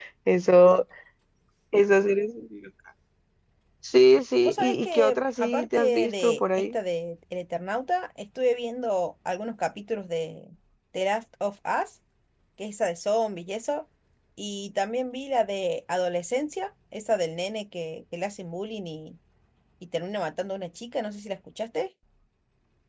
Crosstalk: present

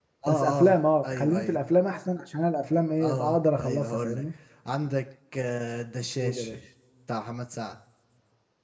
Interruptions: present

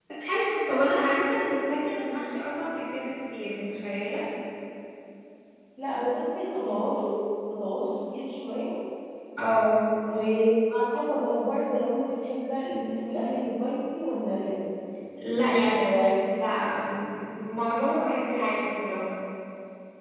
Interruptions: none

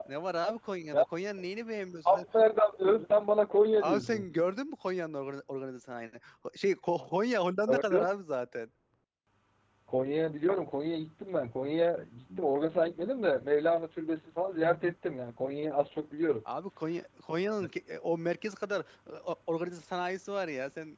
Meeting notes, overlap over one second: none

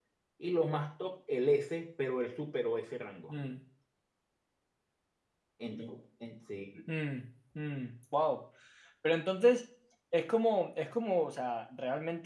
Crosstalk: none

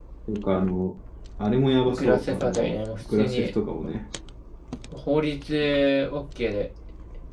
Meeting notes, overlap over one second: present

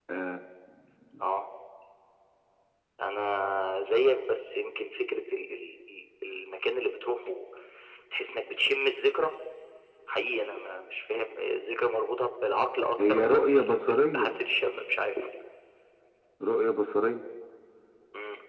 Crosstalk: present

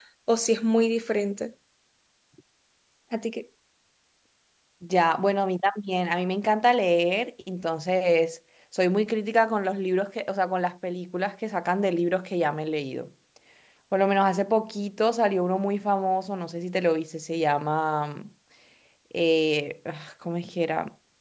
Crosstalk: none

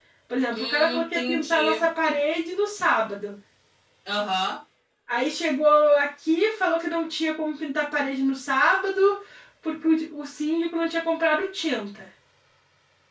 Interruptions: present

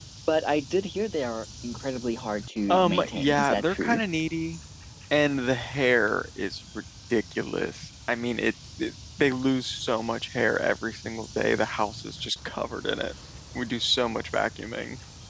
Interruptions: present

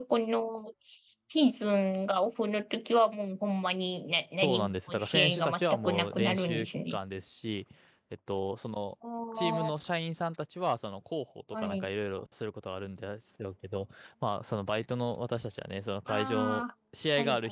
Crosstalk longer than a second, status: present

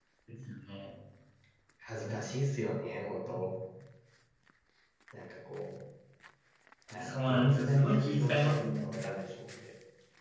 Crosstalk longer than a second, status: present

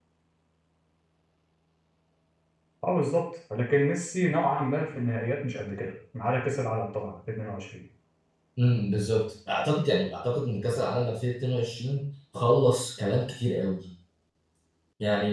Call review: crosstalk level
none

